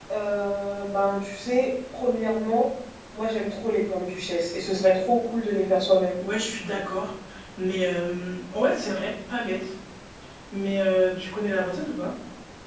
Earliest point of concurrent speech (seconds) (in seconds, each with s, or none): none